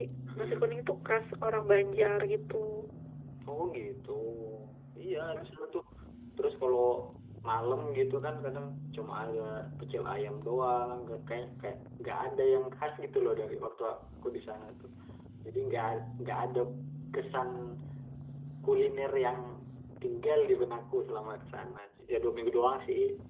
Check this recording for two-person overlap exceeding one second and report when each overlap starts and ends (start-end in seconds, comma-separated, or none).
none